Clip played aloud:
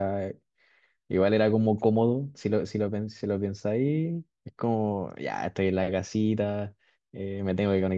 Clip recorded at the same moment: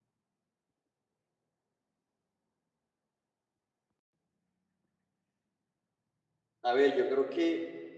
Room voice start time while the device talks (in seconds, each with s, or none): 6.6 s